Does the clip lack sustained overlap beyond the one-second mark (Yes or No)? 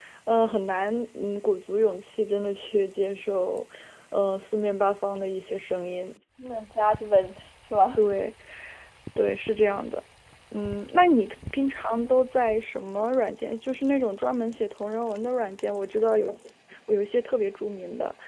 Yes